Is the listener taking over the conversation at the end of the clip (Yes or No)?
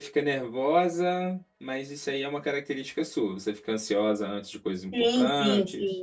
Yes